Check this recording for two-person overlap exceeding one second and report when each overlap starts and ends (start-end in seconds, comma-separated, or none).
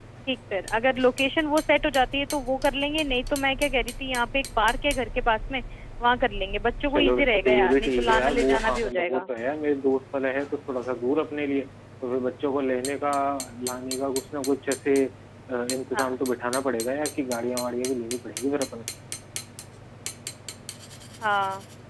6.9-9.3